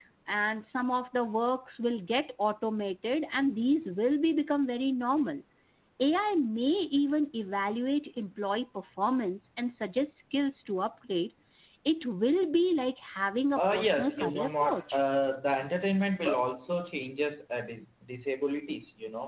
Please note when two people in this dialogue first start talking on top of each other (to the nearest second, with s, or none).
14 s